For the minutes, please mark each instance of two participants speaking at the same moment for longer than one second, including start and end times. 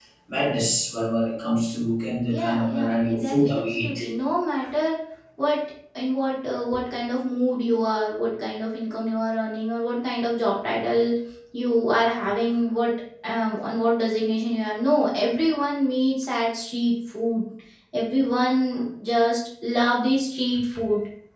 2.3-4.0

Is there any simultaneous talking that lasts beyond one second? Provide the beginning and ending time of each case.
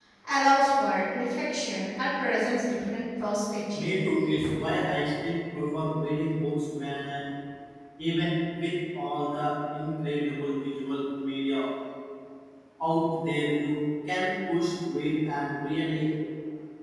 none

